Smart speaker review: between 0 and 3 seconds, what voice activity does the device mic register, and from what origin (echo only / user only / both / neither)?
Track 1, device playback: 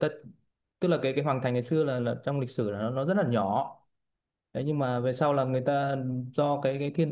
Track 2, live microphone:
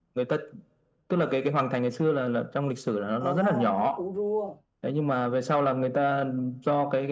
echo only